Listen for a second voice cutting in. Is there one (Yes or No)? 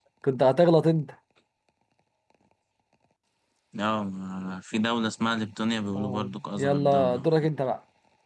Yes